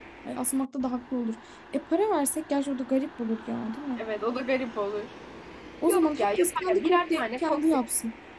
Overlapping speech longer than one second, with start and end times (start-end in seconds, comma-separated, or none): 5.9-7.8